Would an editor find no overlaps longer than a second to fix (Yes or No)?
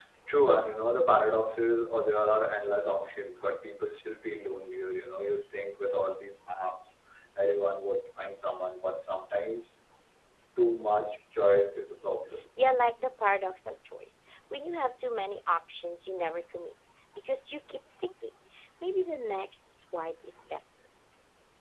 Yes